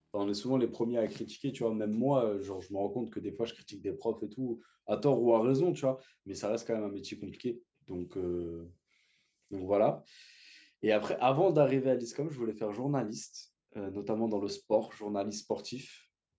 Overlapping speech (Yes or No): No